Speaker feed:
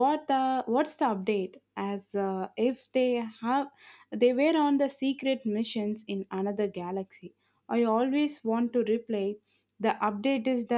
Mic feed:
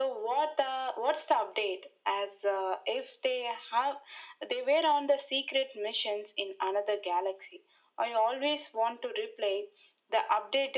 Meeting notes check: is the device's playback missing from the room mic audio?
No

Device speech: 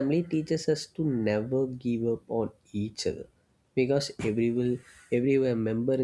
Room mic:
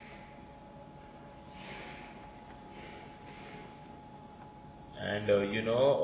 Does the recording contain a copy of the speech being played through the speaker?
No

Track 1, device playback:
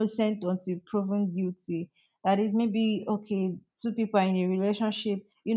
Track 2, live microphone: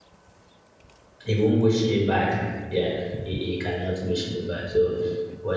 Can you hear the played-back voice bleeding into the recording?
No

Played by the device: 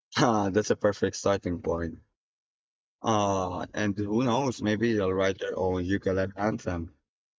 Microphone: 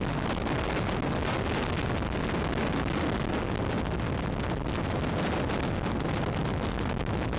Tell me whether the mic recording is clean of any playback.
Yes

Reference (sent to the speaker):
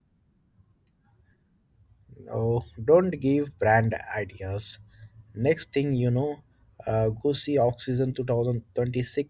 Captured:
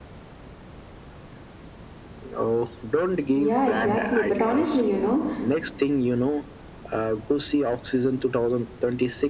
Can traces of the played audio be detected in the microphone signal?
Yes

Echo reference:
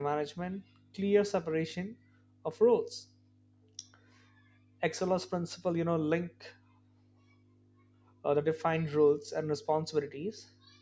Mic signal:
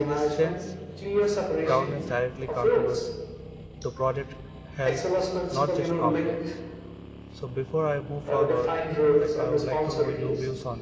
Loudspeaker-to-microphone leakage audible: Yes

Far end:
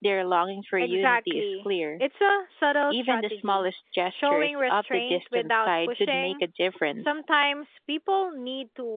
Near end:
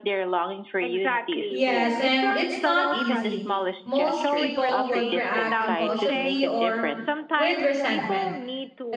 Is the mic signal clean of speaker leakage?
No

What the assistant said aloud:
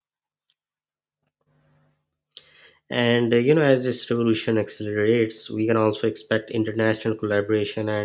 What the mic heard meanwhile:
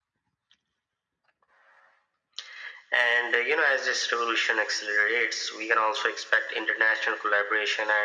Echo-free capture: No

